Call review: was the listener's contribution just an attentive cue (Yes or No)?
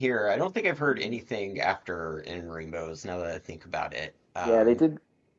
No